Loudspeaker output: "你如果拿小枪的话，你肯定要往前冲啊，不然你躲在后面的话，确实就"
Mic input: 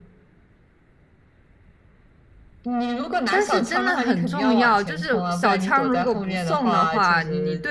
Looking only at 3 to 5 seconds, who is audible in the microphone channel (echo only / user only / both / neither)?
both